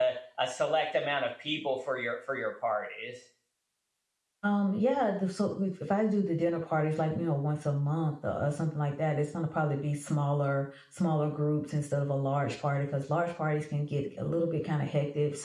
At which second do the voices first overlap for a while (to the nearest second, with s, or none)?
none